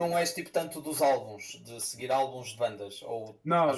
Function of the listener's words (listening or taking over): taking over